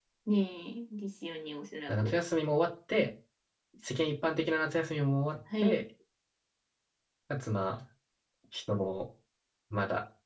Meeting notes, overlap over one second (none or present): none